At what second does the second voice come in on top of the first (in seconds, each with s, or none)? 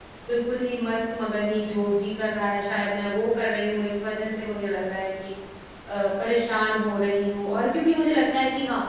none